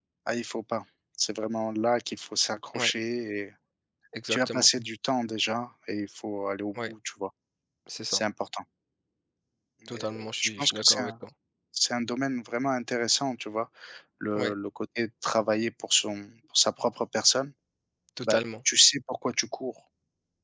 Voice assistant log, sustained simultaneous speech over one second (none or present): present